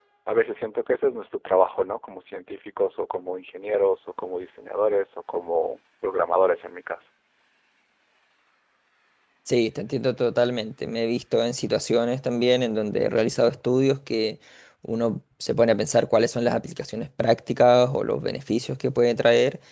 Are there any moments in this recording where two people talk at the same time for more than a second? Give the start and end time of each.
none

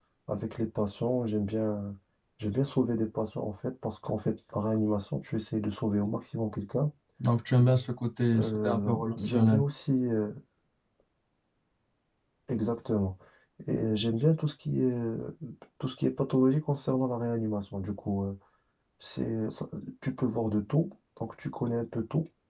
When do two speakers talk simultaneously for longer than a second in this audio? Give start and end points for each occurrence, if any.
8.4-9.6

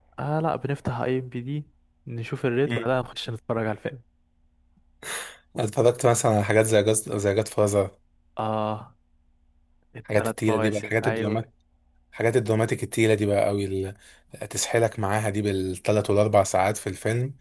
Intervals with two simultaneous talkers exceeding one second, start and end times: 10.2-11.4

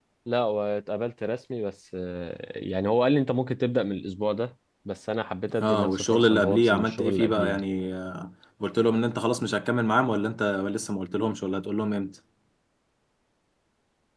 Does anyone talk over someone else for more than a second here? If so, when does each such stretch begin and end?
5.6-7.6

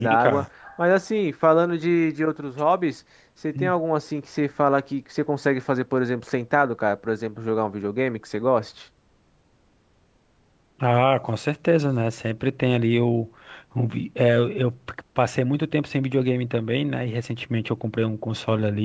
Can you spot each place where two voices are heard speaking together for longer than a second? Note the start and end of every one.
none

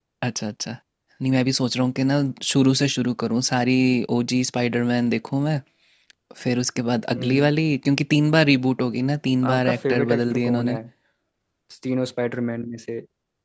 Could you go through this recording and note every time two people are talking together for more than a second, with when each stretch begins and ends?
9.5-10.8

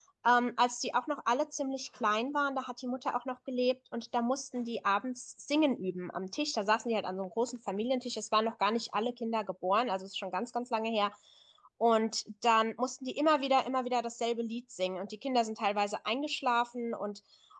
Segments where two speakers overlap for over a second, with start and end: none

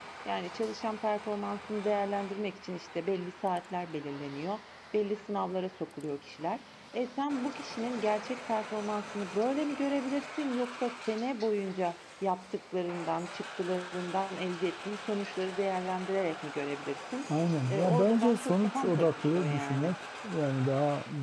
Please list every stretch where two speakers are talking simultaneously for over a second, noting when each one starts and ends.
17.7-19.9

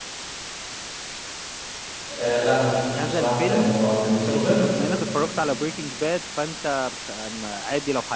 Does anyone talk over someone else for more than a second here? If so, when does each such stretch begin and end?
2.9-4.6

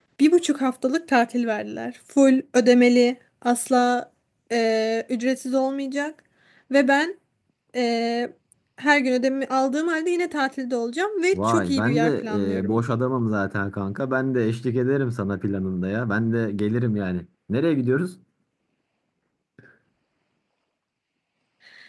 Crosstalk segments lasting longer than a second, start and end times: 11.3-12.8

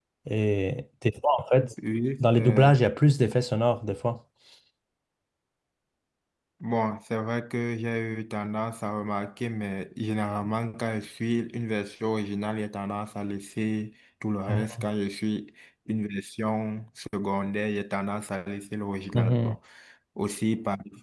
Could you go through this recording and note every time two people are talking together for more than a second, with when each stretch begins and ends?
none

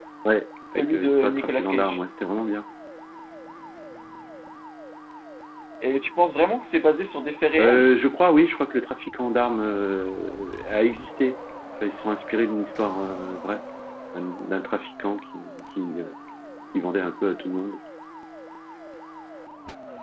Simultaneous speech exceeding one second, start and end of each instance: 0.8-2.0

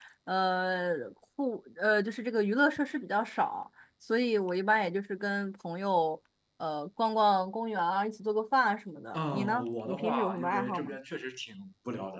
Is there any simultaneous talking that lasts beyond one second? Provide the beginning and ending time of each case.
9.1-11.0

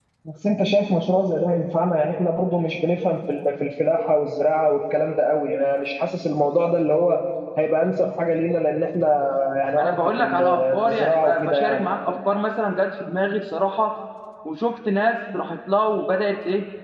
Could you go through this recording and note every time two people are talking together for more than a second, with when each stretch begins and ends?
9.7-11.8

